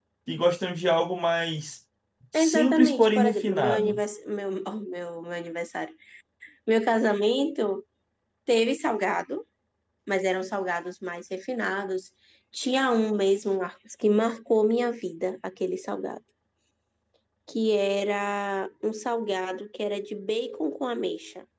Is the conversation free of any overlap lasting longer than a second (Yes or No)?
No